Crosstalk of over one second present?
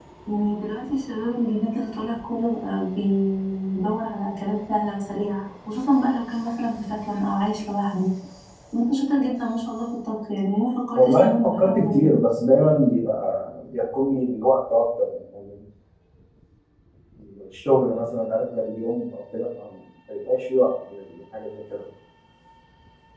Yes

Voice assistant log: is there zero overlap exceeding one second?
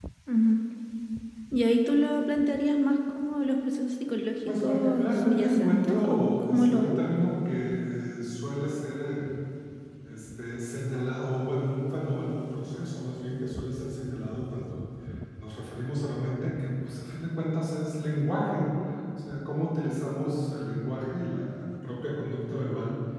No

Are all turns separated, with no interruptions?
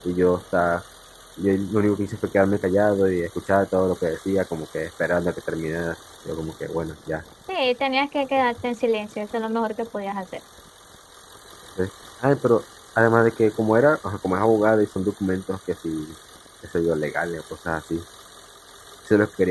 Yes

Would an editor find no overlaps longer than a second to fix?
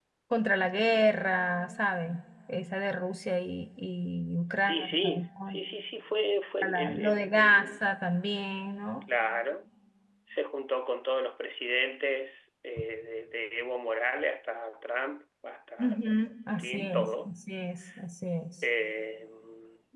No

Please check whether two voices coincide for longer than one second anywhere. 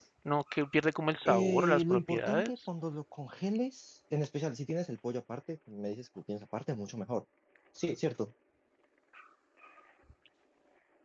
Yes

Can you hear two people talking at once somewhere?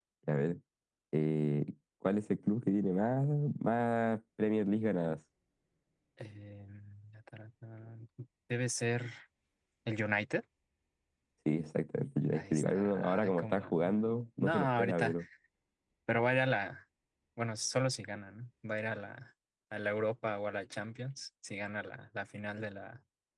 Yes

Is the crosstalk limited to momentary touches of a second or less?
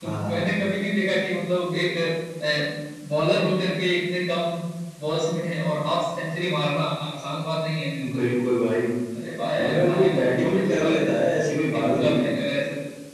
No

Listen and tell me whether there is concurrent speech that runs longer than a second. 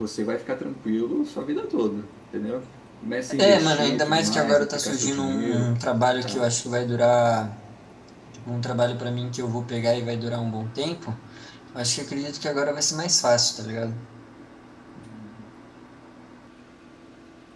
Yes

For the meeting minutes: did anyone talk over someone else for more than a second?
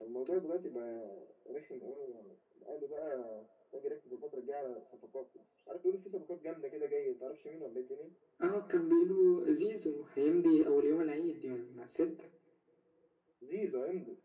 No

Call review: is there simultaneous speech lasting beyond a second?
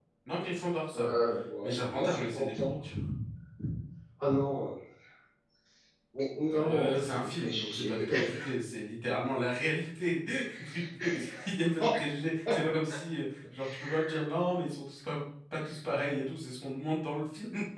Yes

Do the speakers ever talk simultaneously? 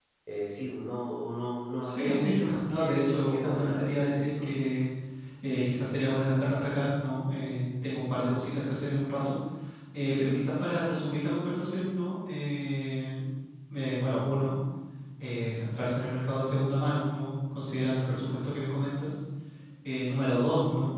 Yes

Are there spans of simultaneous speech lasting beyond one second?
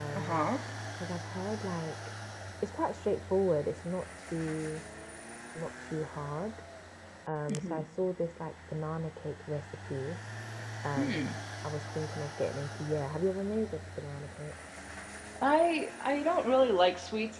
No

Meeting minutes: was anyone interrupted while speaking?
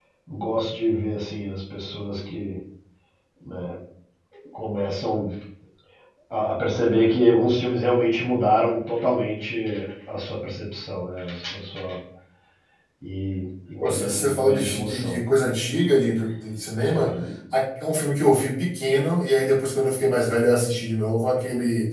Yes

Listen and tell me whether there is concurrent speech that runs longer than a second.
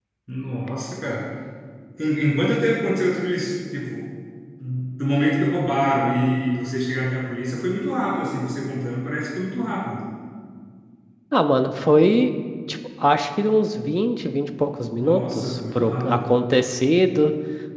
Yes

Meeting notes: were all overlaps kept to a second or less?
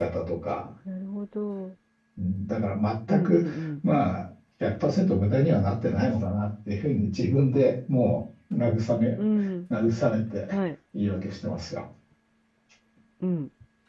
Yes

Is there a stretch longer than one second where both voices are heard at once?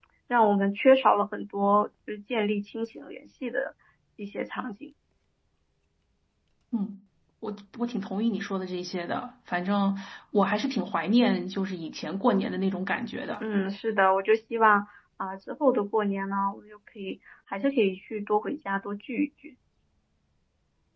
No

